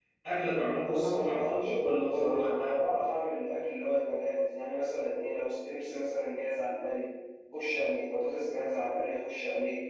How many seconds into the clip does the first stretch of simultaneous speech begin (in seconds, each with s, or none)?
0.8 s